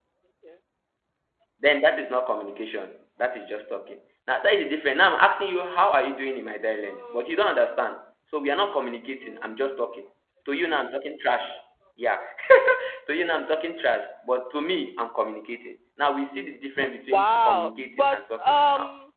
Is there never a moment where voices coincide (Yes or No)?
No